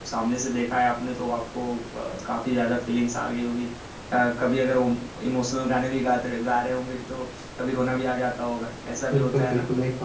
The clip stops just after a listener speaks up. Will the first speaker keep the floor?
No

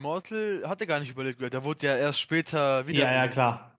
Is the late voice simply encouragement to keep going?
No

